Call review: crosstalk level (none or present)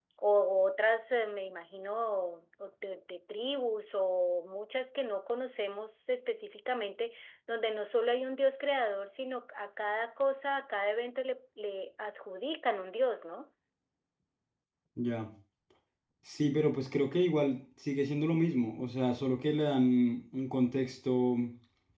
none